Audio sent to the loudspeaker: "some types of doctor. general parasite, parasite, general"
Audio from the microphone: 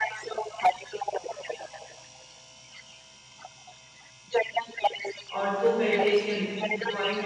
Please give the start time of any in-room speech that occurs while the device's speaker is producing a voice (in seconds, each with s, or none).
5.3 s